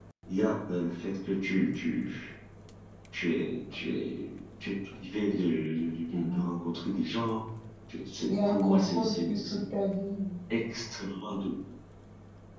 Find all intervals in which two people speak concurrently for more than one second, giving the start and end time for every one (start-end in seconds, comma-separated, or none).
8.3-9.6